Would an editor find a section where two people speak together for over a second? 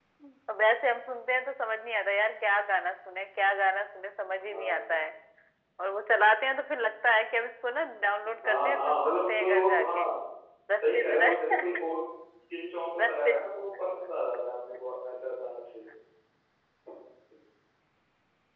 Yes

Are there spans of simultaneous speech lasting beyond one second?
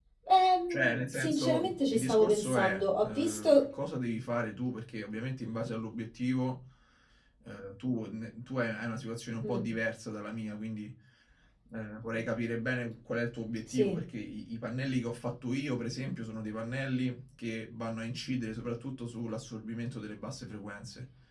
Yes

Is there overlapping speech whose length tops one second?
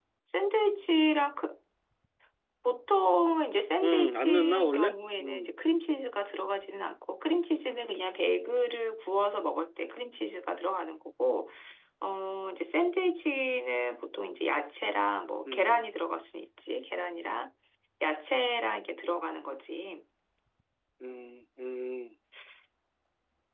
Yes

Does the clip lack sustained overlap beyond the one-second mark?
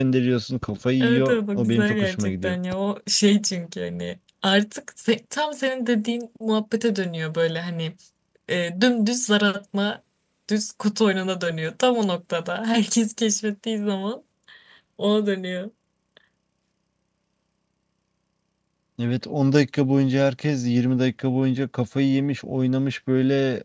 No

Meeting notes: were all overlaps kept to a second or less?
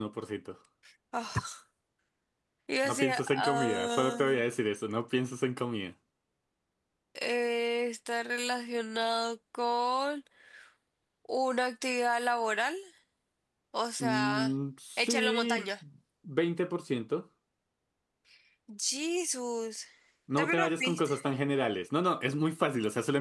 No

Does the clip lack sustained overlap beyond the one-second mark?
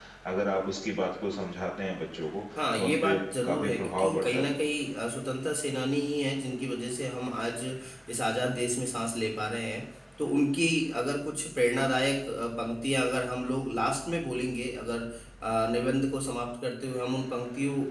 No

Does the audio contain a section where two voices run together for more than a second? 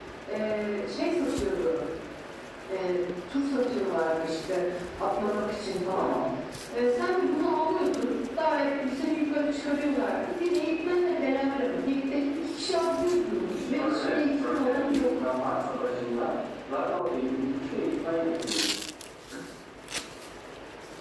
Yes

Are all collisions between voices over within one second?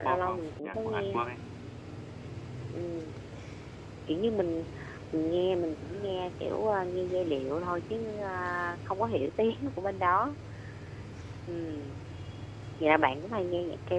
No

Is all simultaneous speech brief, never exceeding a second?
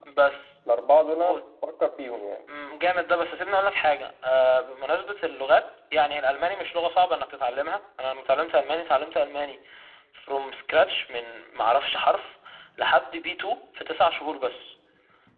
Yes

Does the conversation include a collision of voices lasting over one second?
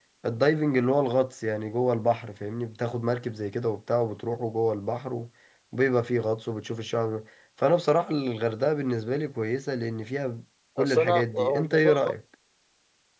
Yes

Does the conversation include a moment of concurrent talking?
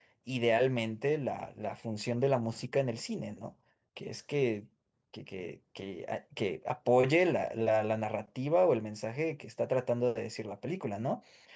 No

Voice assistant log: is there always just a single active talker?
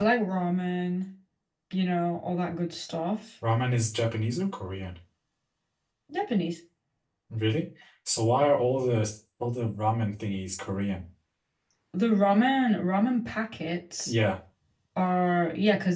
Yes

